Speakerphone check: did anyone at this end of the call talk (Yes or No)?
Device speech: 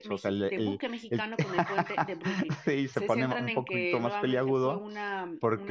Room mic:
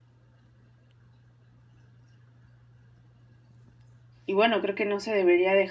Yes